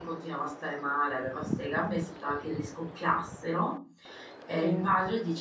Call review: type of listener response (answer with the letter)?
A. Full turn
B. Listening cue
B